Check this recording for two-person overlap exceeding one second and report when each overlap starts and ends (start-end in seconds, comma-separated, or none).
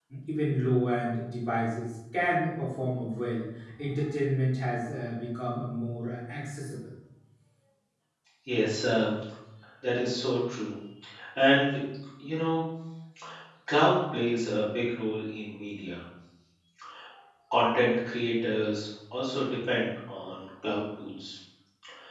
none